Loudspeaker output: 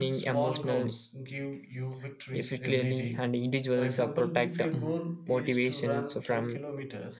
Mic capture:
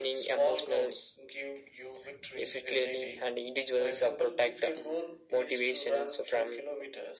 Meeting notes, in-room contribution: none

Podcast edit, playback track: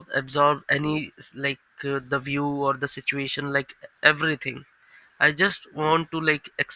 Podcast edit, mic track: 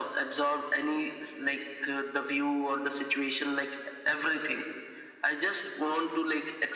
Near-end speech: none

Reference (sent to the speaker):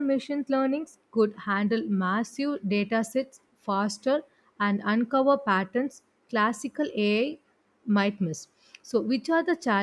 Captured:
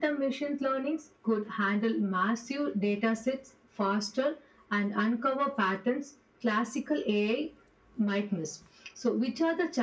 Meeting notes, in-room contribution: none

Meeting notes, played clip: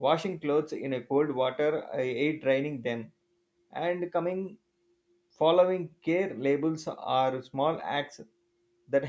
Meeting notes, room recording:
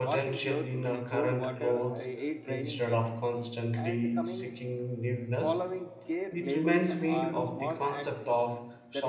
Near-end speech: present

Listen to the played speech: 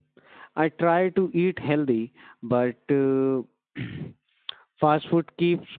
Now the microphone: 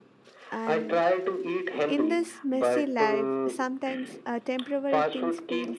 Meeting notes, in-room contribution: present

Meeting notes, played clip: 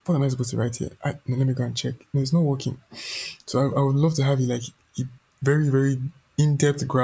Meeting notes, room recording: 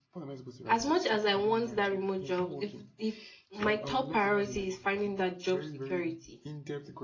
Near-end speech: present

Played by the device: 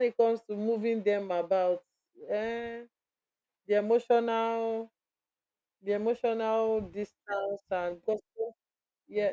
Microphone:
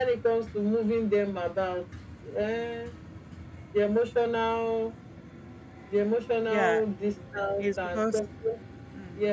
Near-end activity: present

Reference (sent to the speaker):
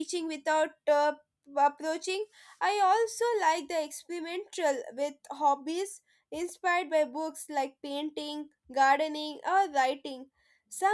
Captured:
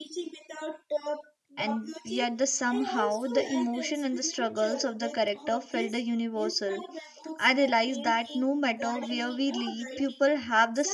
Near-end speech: present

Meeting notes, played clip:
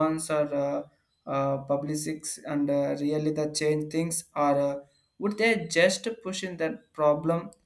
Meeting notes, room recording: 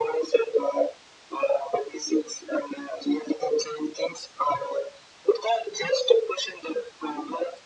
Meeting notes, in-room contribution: none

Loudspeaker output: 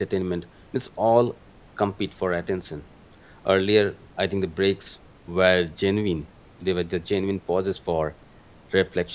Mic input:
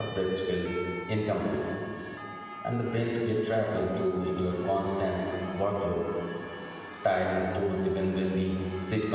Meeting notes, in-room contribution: present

